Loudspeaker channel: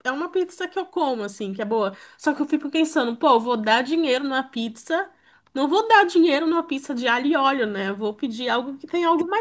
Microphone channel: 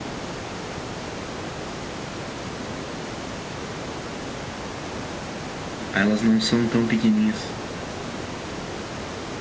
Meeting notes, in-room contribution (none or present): present